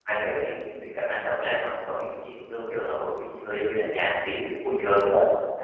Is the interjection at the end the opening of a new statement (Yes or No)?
Yes